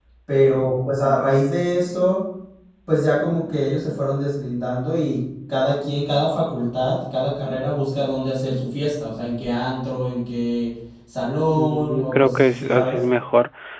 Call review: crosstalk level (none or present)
present